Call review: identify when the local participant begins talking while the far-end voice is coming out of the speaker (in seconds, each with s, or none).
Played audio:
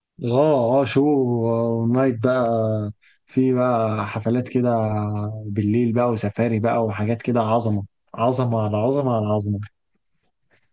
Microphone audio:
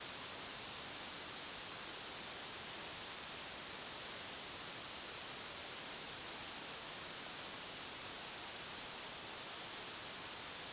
none